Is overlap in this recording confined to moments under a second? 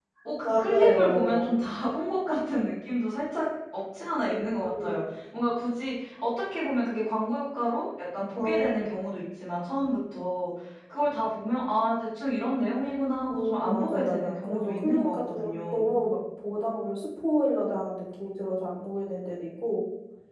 No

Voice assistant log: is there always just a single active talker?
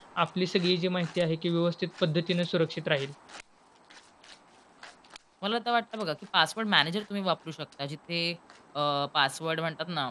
Yes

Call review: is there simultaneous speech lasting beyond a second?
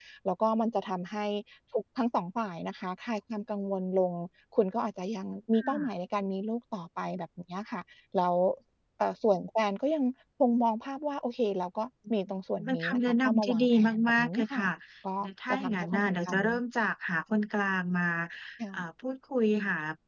Yes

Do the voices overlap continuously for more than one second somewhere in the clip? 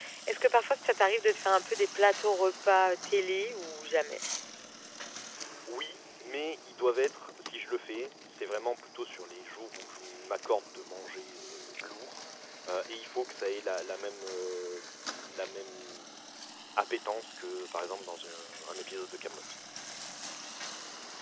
No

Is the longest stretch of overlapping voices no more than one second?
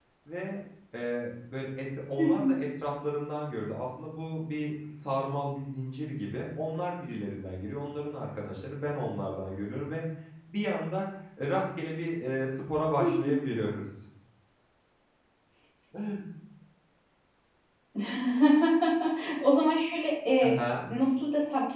Yes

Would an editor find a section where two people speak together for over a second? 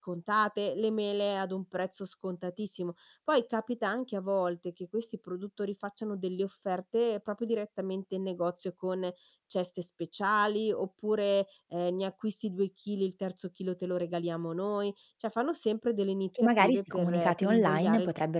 Yes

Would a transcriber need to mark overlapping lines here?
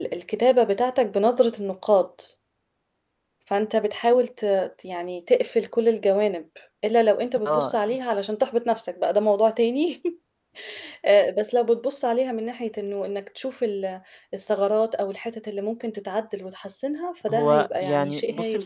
Yes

